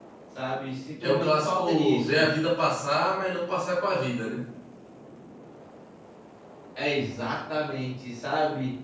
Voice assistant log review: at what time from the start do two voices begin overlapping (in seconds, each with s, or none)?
1.0 s